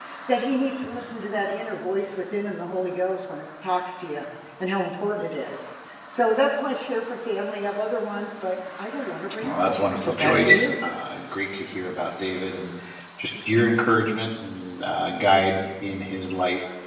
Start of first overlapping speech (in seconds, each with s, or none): 9.4 s